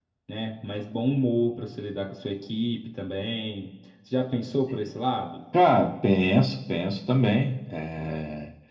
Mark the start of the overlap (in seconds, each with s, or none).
none